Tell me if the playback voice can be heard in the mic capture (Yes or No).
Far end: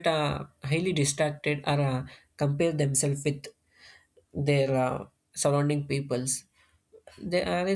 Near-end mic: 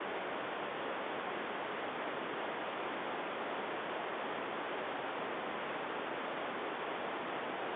No